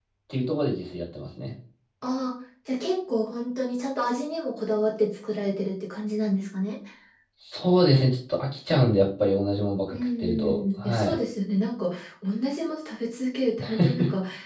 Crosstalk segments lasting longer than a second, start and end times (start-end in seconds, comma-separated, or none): 9.9-11.2